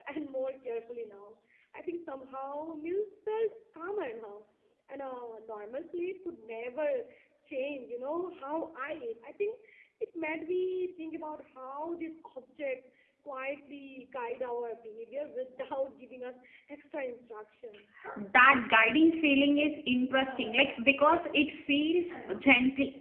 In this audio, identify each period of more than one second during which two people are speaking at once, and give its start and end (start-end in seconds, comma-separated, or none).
none